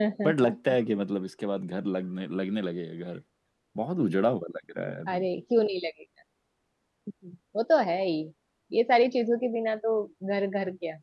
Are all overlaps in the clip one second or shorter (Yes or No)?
Yes